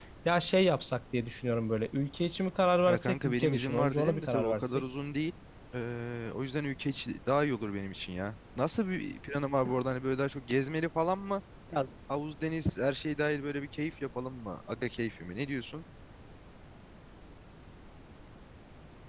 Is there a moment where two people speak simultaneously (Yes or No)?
Yes